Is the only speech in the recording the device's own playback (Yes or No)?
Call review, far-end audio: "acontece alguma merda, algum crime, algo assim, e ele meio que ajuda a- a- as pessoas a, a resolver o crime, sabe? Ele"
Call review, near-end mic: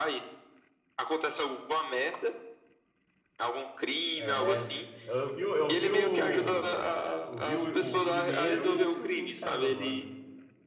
No